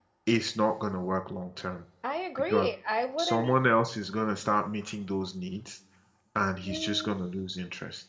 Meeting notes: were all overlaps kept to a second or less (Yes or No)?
Yes